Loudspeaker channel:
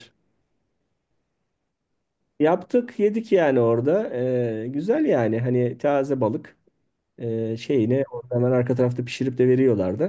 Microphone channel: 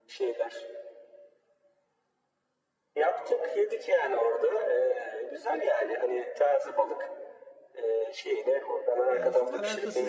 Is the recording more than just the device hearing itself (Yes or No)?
Yes